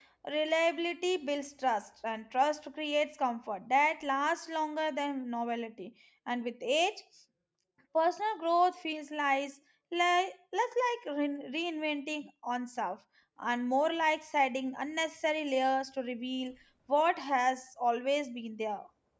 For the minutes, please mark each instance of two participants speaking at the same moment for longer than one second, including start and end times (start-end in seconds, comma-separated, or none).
none